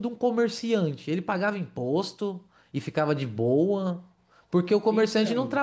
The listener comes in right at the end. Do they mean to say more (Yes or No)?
No